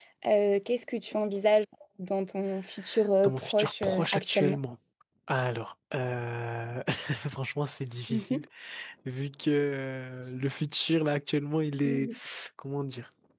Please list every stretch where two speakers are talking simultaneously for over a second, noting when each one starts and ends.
3.2-4.6

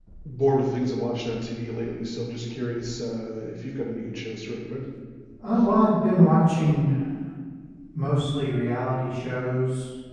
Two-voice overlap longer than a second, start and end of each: none

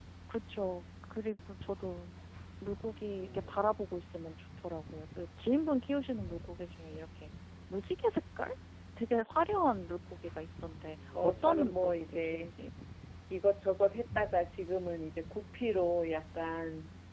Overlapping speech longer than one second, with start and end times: 11.2-12.5

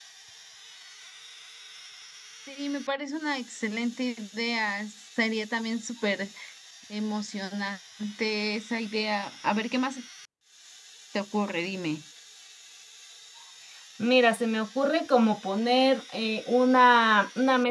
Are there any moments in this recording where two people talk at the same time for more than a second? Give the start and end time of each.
none

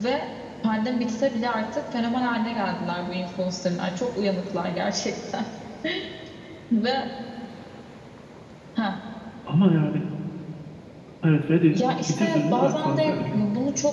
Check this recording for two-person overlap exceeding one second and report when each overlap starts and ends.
11.7-13.4

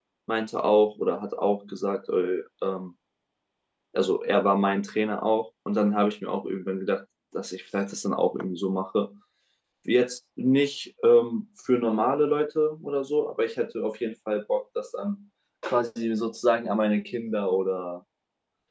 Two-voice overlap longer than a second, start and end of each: none

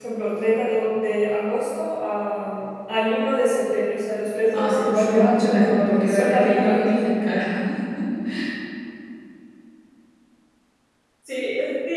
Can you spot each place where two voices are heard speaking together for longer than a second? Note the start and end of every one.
4.5-6.8

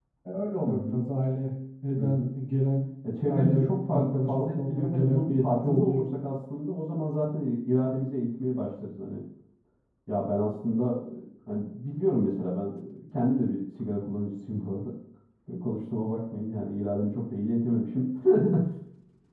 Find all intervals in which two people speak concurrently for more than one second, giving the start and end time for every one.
3.3-6.0

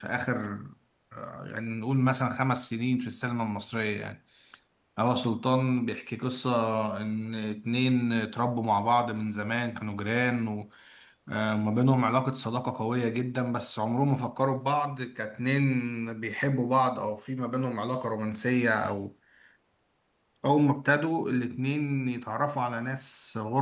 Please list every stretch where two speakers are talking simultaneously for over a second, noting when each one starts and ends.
none

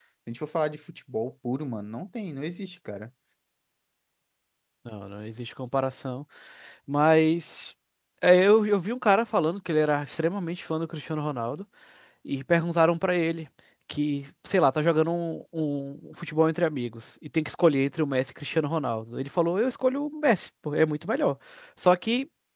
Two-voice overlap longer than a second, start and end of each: none

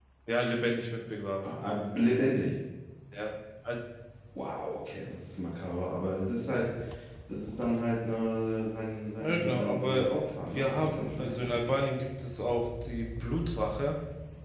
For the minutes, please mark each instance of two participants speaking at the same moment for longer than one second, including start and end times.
9.1-11.7

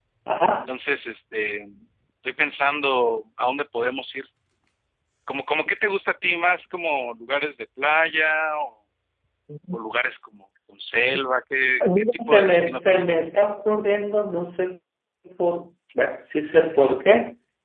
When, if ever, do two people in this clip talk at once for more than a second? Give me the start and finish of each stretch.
11.8-13.1

